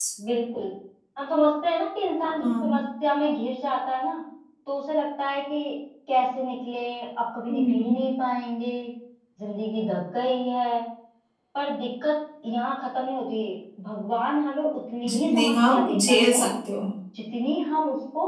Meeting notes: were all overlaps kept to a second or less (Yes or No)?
No